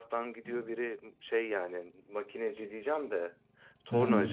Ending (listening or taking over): listening